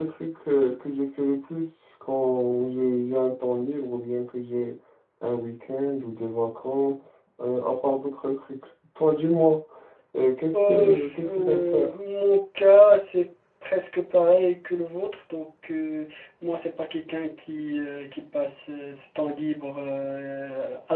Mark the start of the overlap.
11 s

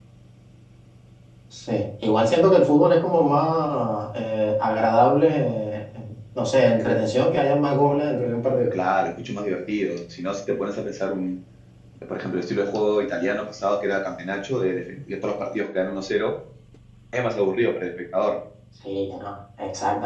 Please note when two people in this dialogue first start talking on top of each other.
none

